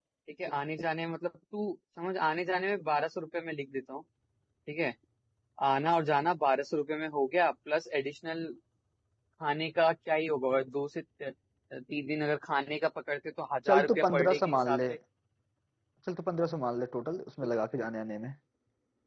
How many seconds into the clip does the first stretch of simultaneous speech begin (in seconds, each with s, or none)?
13.7 s